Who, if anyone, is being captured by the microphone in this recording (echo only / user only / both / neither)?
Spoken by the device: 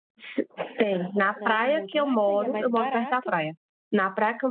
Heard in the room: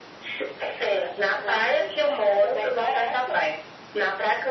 echo only